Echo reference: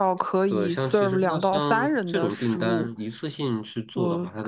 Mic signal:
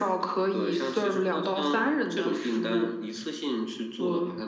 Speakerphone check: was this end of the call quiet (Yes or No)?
Yes